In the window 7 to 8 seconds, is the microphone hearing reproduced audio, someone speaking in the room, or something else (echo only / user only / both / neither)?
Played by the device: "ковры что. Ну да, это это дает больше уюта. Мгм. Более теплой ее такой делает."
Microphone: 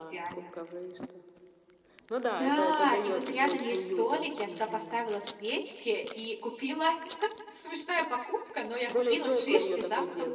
user only